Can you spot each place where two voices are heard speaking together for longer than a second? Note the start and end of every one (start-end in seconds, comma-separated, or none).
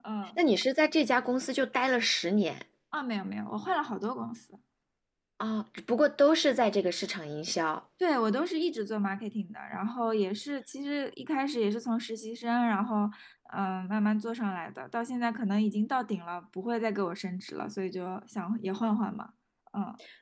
none